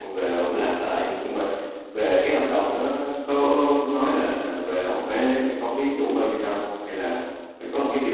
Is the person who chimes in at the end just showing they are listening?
No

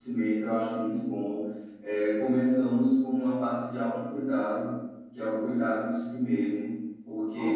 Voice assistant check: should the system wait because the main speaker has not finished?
Yes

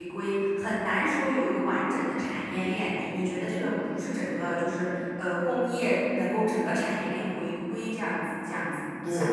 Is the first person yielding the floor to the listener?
Yes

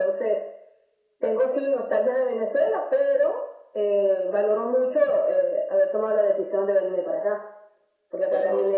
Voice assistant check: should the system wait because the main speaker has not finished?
Yes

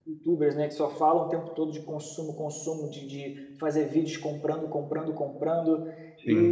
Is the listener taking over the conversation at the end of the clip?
No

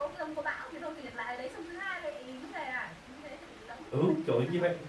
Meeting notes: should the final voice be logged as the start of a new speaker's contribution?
Yes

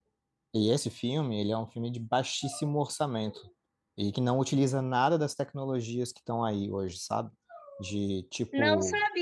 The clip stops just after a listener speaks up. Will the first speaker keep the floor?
No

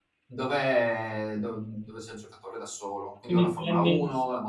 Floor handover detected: No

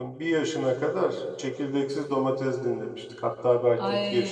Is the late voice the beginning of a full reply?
Yes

